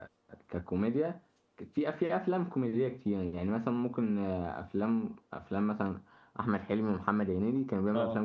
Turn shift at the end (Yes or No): No